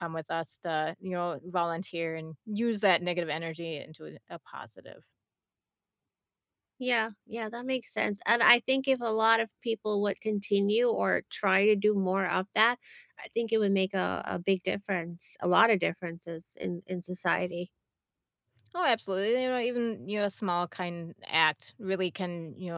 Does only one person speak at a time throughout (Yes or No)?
Yes